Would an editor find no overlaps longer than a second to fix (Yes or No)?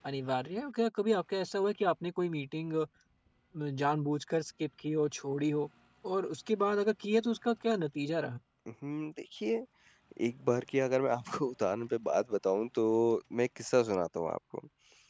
Yes